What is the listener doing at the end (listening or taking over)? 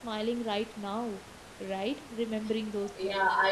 taking over